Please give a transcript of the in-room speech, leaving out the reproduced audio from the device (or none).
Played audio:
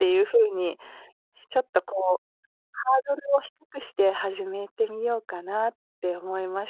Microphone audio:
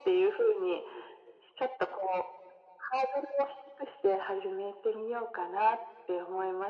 none